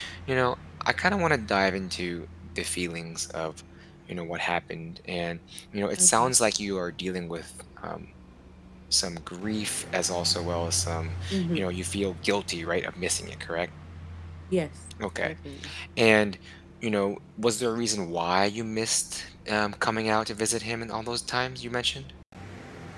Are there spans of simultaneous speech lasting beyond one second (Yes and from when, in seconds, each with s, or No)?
No